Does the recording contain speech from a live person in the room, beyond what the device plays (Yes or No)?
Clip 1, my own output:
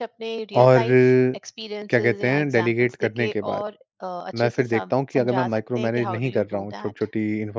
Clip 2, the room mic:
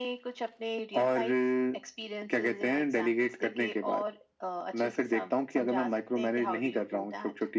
No